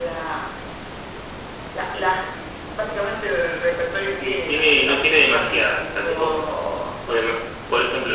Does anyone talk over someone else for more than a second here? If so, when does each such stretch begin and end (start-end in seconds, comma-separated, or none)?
4.2-6.4